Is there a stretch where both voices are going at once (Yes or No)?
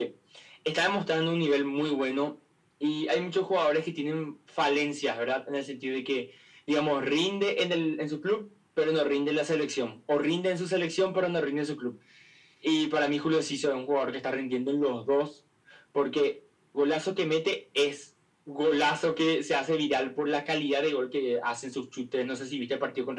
No